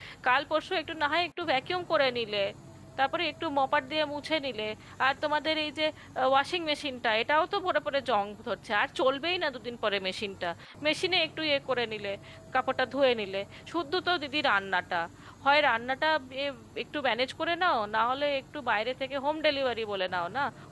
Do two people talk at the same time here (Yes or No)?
No